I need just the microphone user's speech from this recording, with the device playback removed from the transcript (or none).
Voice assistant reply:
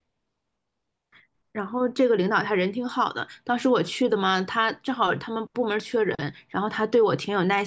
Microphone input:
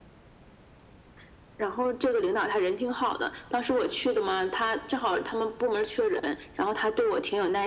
none